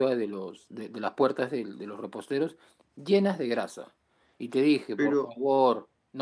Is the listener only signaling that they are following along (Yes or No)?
Yes